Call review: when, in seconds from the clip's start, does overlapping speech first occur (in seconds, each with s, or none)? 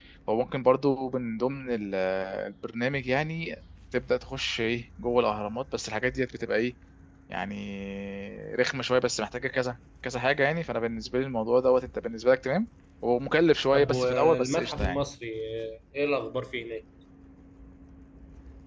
13.7 s